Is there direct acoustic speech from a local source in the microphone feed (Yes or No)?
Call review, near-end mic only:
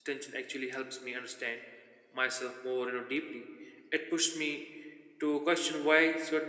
Yes